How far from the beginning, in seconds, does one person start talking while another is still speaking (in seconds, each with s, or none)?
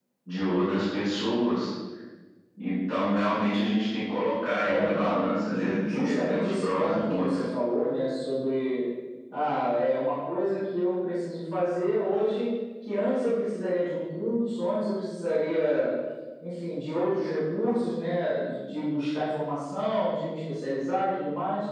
4.6 s